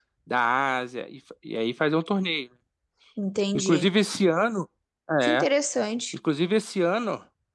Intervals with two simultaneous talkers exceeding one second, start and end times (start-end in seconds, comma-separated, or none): none